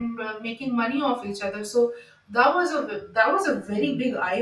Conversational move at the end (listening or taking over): taking over